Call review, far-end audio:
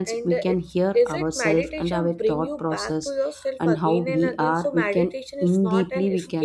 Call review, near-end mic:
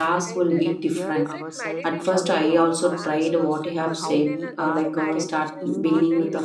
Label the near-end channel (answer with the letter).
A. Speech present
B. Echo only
A